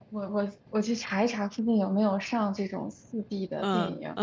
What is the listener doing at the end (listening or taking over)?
taking over